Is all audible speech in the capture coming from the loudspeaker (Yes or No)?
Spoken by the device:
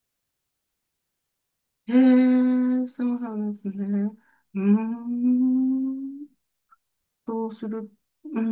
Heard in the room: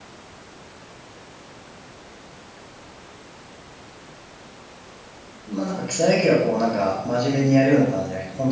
No